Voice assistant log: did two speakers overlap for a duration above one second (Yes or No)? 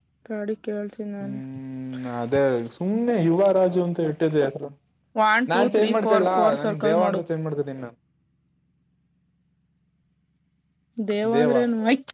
Yes